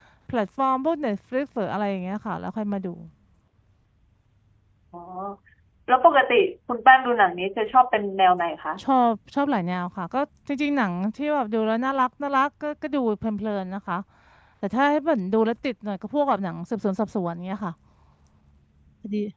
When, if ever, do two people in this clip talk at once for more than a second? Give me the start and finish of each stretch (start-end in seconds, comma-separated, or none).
none